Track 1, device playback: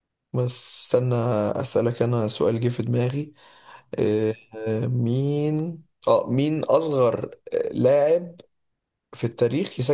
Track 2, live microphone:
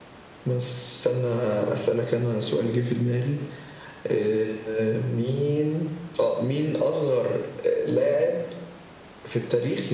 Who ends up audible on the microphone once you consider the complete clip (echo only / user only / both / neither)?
echo only